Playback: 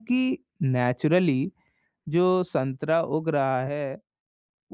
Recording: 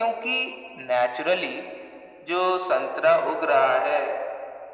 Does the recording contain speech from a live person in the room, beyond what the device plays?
No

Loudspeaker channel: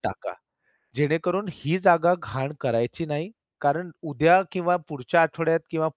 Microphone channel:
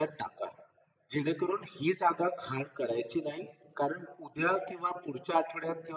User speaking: No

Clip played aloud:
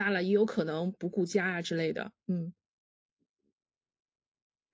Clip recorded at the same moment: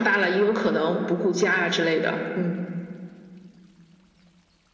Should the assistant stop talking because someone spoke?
No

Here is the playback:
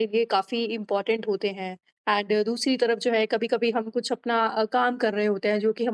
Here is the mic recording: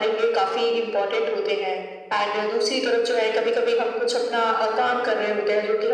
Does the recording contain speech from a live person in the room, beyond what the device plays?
No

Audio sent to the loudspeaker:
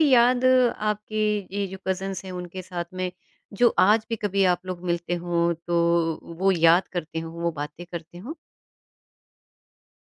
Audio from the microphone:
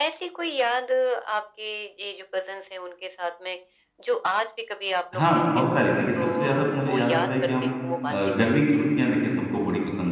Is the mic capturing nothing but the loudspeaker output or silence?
No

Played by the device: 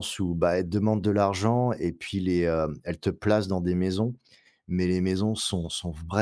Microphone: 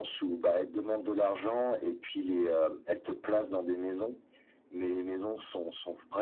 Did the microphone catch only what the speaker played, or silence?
Yes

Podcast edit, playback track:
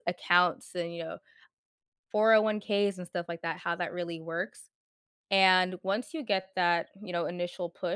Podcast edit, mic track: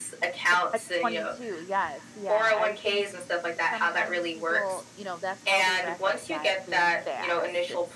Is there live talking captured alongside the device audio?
Yes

